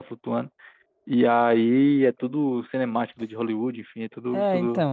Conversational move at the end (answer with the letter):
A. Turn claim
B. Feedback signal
A